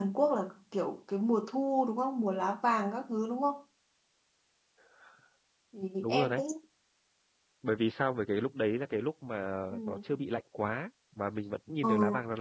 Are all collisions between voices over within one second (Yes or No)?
Yes